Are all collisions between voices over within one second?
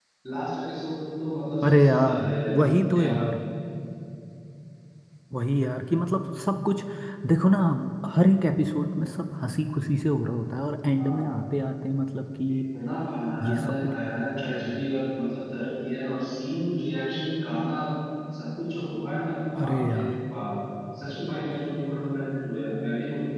No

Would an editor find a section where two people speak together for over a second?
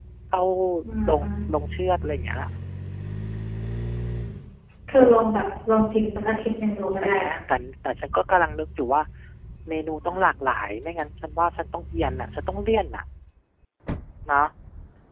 No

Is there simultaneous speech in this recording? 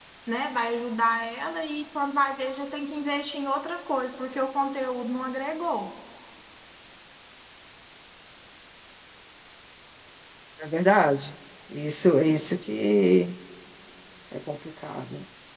No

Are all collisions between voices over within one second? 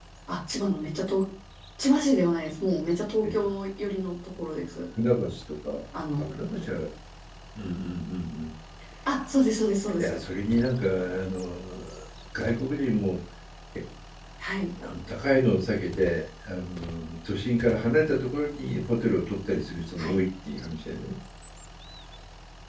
Yes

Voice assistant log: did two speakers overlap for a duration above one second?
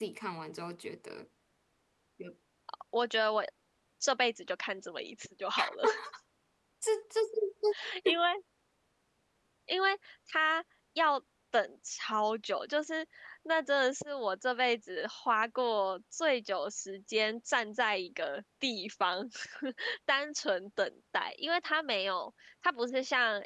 No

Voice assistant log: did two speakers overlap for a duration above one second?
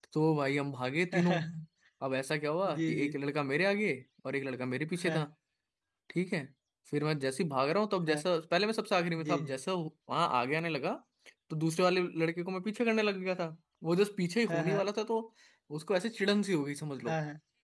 No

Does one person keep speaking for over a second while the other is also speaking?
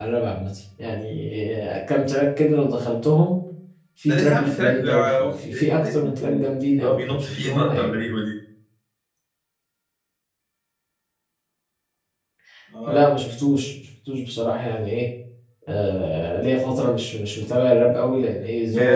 Yes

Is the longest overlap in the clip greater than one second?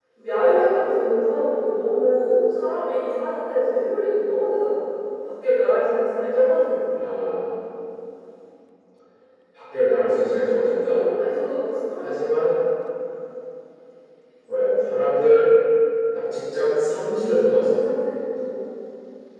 No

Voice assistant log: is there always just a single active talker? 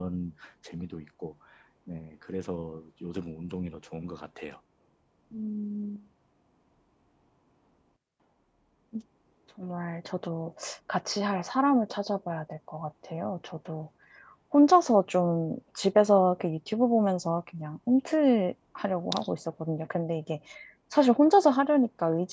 Yes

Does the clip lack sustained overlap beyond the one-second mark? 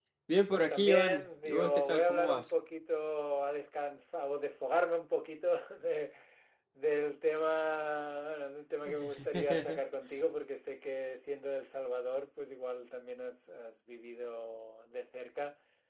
No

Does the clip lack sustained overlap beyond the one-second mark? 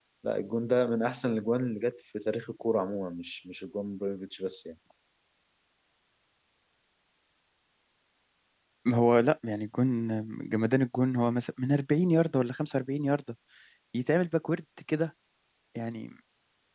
Yes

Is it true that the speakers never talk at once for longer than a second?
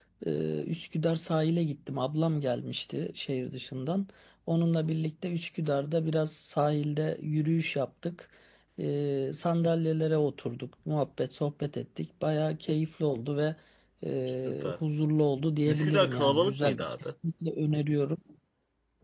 No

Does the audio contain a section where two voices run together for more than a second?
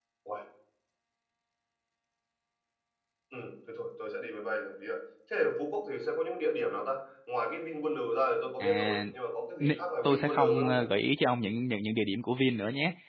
Yes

